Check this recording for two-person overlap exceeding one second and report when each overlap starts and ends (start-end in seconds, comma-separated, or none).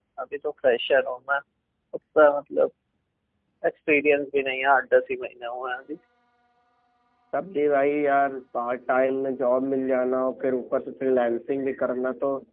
none